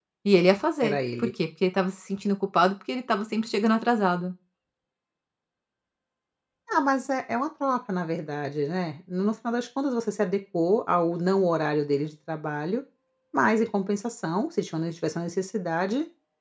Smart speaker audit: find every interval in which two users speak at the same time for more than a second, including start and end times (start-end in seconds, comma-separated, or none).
none